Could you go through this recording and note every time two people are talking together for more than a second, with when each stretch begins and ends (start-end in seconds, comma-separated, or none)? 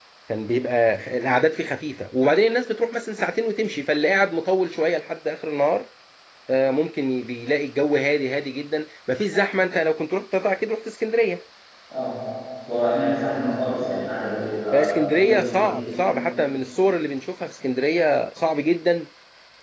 14.7-16.2